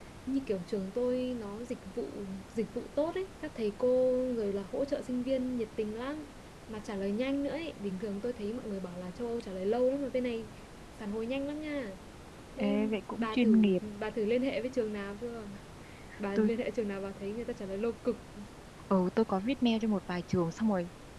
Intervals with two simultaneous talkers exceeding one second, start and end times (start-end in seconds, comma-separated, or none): 12.6-13.8